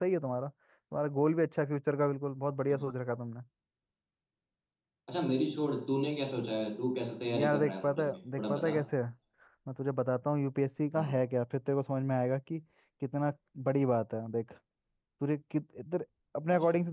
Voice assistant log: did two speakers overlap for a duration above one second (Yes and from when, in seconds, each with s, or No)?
Yes, from 7.3 s